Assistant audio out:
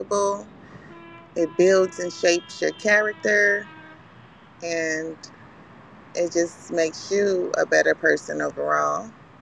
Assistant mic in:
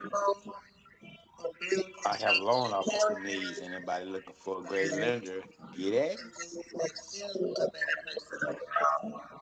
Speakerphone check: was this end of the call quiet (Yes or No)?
No